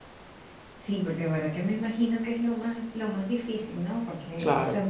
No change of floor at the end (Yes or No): Yes